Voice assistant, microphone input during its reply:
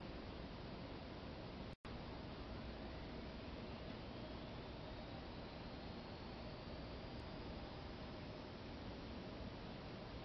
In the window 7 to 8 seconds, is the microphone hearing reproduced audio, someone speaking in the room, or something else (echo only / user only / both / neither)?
neither